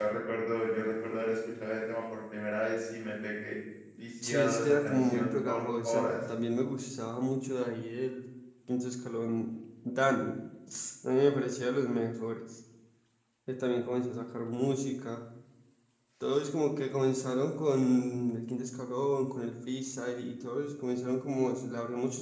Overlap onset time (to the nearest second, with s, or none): 4 s